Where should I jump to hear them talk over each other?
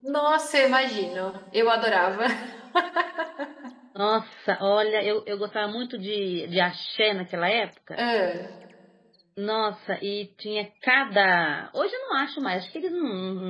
none

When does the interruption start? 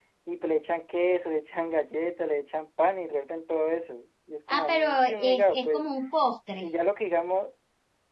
4.5 s

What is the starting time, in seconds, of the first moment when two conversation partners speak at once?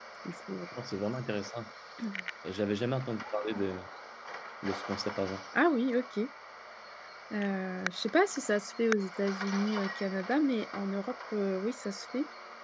none

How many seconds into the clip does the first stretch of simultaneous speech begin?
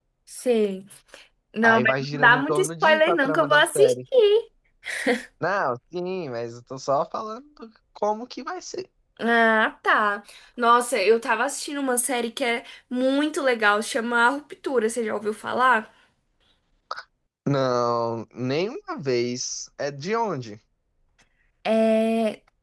1.6 s

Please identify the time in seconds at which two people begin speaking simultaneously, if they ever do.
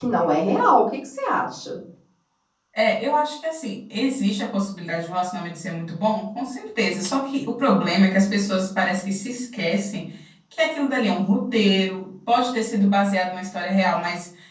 none

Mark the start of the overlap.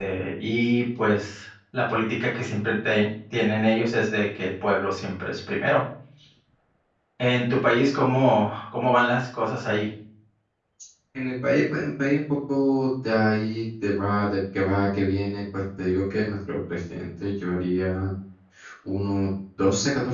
none

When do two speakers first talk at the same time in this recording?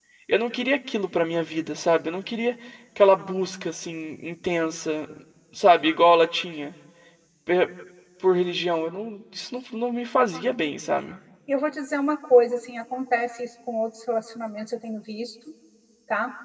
none

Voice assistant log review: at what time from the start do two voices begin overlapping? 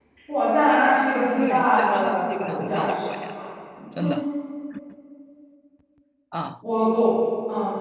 1.4 s

